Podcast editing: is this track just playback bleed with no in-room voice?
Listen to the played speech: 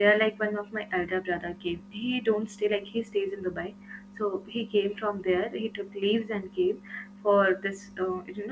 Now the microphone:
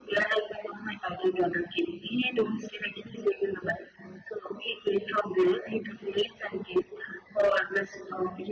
Yes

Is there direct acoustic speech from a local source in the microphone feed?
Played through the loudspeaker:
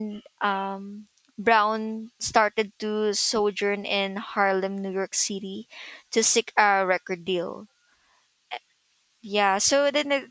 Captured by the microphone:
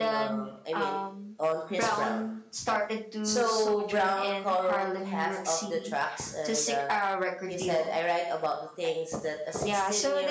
Yes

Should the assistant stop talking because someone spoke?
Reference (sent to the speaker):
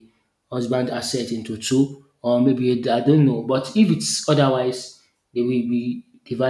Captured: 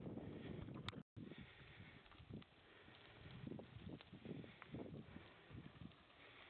No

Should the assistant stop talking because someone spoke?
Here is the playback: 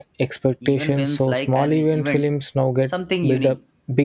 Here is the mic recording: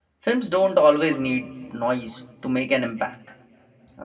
Yes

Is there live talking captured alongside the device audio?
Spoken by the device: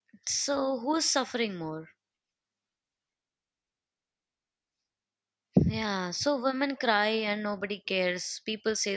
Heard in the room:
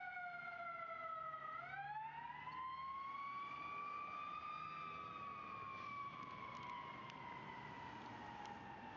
No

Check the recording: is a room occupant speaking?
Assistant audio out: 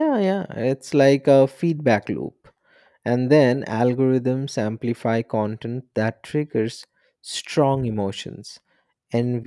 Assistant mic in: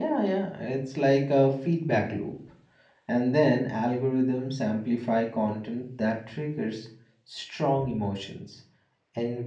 No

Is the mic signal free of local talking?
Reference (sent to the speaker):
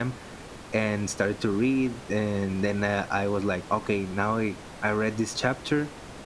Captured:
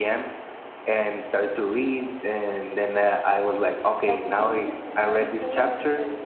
No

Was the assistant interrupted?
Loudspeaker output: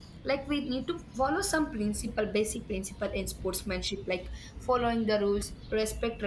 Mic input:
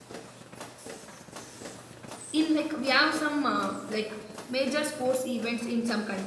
Yes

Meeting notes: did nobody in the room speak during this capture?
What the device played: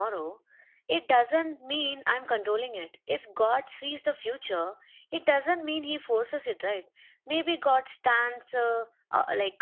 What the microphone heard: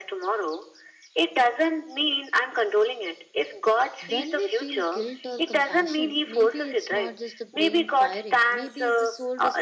No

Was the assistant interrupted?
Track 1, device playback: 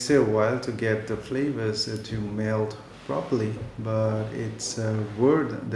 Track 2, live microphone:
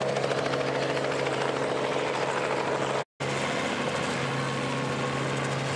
No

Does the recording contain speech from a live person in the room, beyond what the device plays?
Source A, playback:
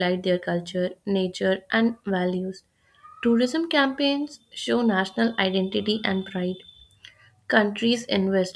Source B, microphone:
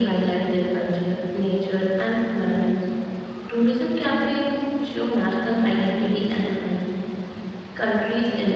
No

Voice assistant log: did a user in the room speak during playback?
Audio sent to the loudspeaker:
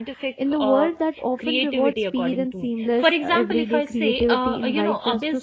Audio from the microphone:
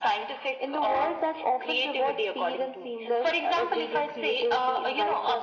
No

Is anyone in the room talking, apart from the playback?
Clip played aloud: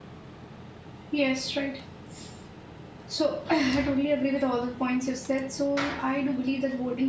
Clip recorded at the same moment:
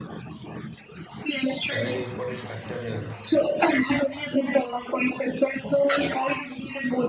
Yes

